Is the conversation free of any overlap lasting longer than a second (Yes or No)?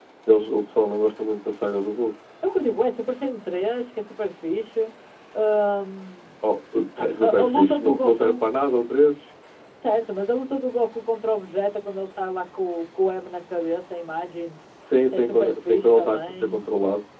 No